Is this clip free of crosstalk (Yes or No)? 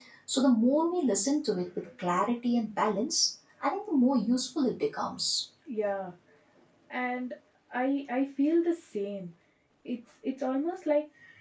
Yes